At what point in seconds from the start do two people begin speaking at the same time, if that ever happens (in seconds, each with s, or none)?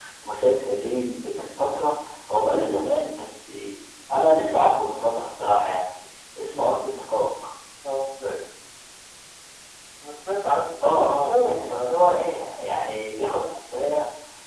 10.8 s